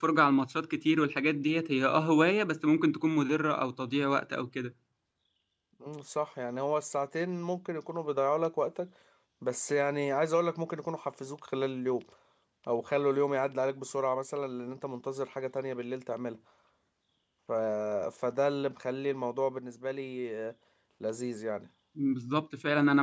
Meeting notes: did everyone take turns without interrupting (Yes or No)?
Yes